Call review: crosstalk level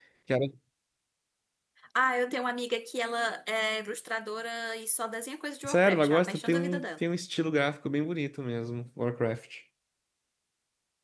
present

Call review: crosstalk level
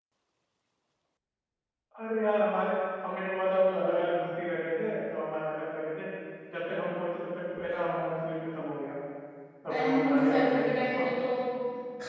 present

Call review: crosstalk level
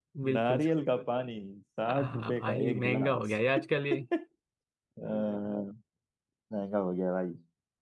present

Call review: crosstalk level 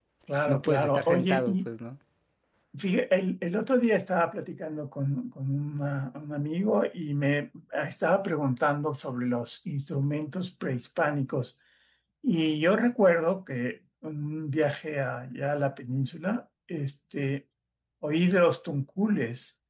present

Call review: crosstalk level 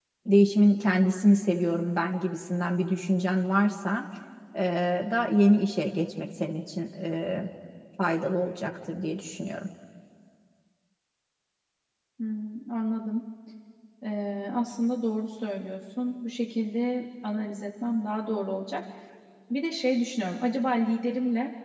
none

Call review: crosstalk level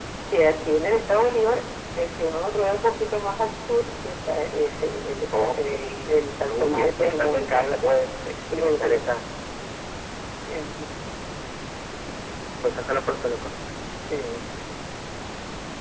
present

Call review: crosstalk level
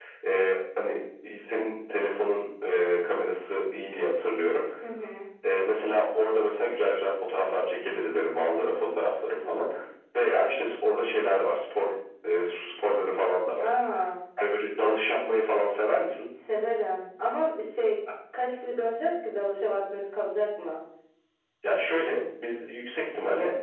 none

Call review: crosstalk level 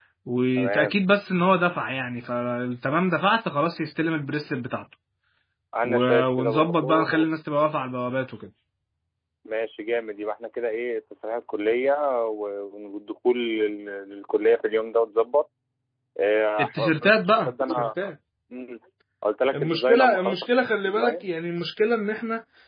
present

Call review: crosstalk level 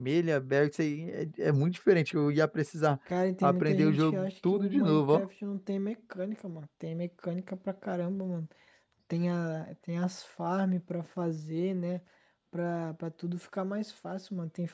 present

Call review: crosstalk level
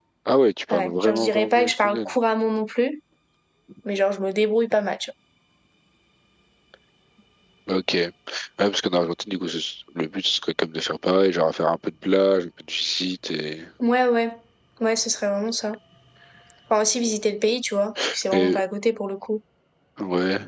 present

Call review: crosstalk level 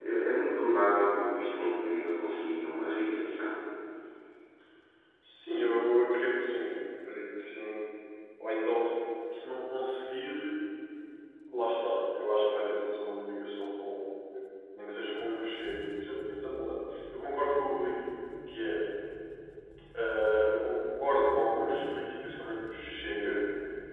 none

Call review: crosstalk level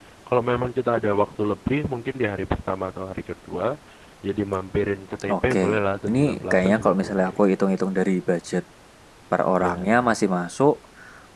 present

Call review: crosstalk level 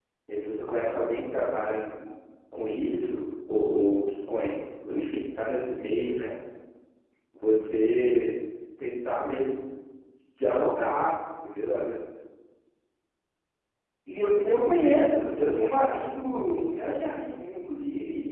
none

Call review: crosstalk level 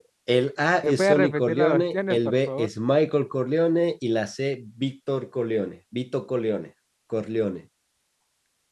present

